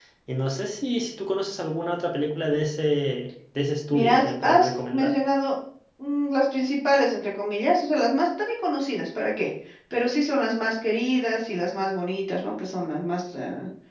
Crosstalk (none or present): present